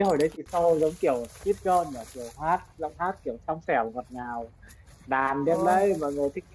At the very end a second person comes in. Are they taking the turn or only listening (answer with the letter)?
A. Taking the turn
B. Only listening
B